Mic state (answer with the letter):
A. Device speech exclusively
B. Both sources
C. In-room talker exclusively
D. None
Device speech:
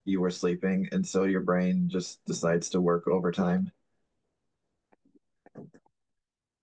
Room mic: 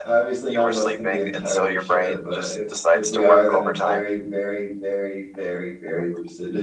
B